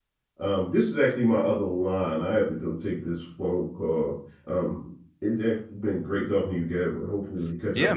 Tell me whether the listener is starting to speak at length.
Yes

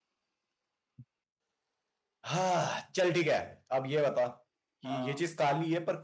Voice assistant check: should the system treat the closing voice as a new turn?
No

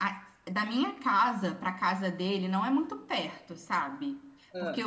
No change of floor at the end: Yes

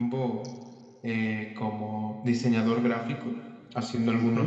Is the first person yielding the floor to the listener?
No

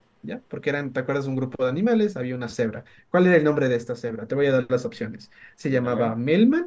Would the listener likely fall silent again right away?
Yes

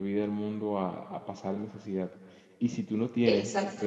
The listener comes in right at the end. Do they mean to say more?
No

